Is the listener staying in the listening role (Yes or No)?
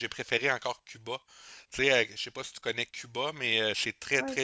Yes